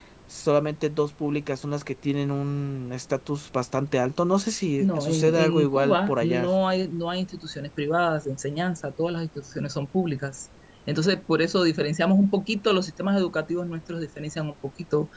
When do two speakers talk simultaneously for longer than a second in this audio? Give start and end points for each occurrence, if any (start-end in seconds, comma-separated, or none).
4.8-6.5